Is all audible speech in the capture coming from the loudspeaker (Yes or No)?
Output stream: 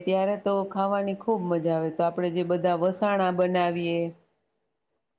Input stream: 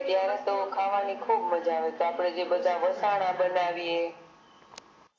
No